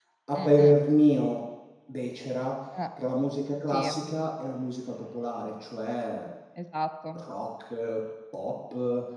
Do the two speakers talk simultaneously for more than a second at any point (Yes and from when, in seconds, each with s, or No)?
No